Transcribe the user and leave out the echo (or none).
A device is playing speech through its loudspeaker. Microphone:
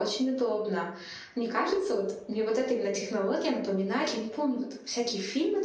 none